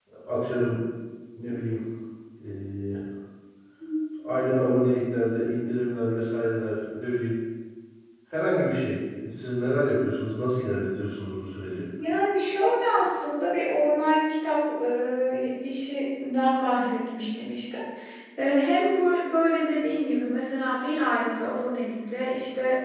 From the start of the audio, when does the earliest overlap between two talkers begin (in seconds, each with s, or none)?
none